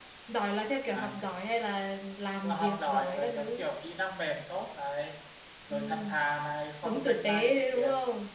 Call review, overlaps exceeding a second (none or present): present